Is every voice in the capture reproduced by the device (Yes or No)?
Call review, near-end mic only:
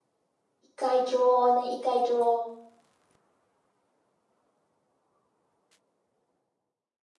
No